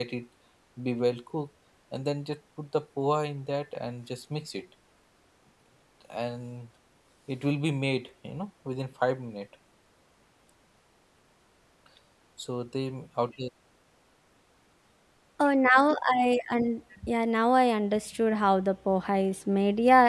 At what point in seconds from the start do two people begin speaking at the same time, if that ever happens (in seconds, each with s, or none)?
none